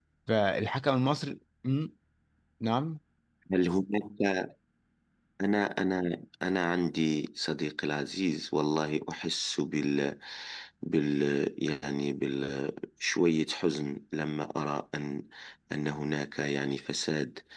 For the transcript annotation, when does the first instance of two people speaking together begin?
none

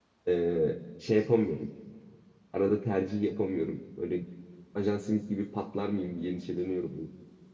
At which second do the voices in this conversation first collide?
none

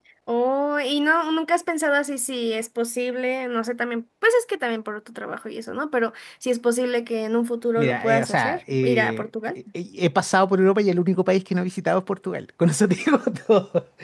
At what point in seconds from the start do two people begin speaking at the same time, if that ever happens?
7.8 s

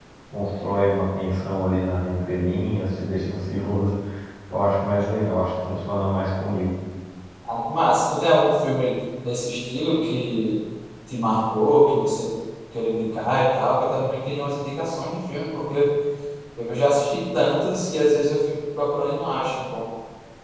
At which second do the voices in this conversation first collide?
none

